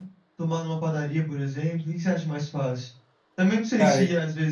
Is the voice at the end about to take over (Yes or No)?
No